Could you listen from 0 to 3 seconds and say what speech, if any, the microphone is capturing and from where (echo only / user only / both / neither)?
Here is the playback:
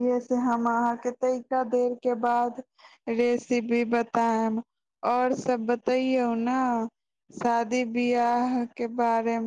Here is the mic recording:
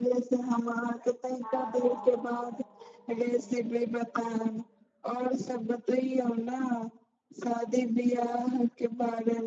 both